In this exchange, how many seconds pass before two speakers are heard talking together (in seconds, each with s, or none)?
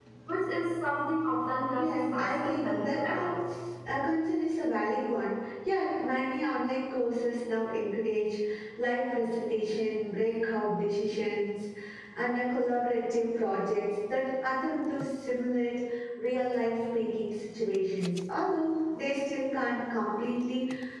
1.8 s